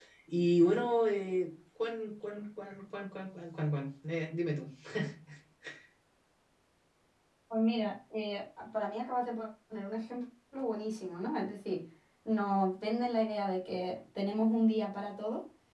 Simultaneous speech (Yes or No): No